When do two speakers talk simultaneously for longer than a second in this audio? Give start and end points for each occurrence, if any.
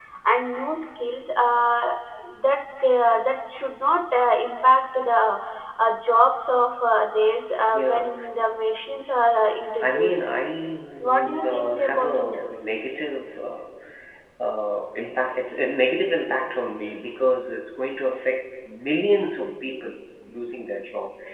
11.1-12.4

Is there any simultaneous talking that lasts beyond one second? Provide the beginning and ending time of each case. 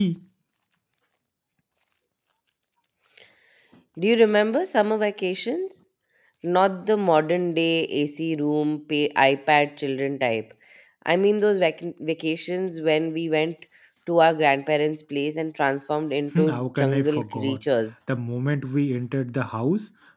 16.4-17.6

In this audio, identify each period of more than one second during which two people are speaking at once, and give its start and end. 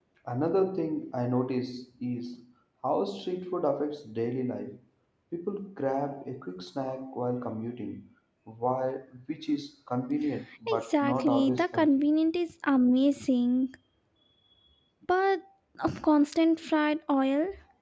10.7-12.0

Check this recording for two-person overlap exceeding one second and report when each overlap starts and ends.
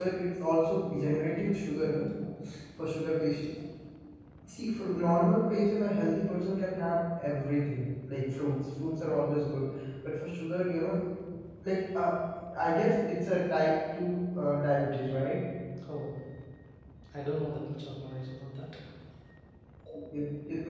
none

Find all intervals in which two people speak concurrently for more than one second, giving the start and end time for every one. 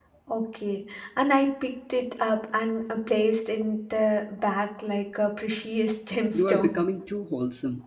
none

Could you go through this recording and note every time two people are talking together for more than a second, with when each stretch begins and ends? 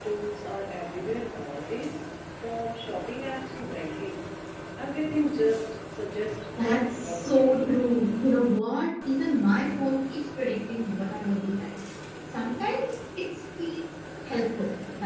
6.6-7.8

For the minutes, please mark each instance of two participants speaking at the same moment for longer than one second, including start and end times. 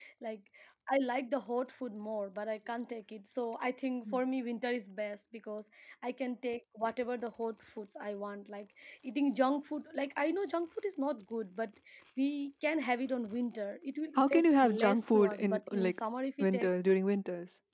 14.2-16.0

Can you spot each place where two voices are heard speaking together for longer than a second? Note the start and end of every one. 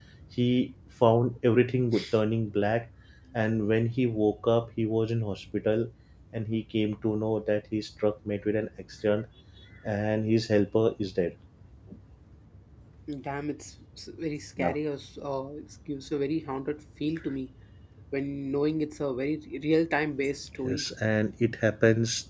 none

